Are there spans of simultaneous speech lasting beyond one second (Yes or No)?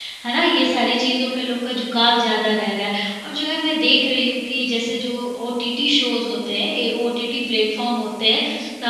No